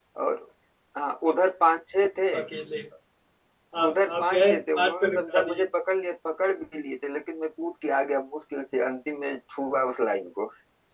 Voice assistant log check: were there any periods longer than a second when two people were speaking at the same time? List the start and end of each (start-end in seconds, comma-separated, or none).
3.8-5.6